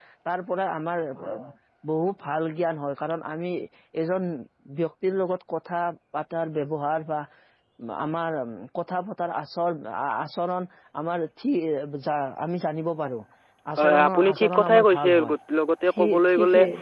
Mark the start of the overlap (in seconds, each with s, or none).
13.8 s